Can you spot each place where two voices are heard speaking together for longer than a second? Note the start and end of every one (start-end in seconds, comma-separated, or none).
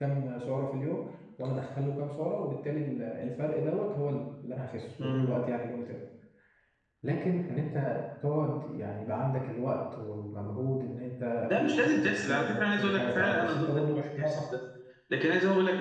11.5-14.4